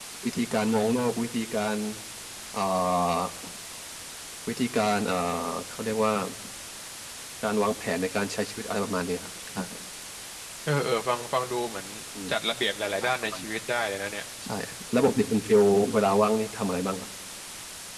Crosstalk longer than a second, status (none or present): none